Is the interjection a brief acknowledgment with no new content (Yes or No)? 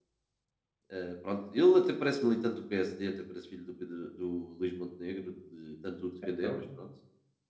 Yes